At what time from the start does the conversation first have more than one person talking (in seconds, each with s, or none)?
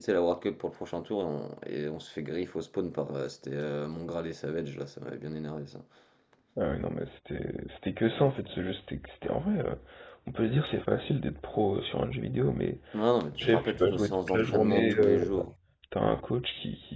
13.4 s